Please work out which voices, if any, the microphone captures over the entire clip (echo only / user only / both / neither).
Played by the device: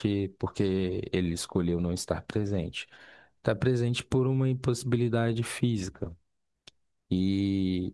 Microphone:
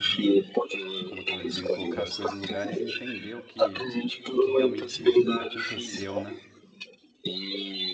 both